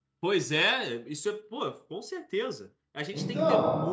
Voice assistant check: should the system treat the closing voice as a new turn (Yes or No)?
No